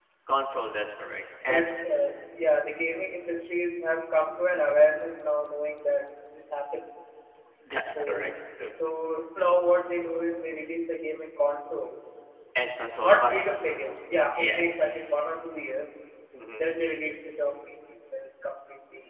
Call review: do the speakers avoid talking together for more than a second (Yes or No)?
Yes